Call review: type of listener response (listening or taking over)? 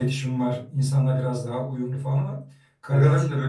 listening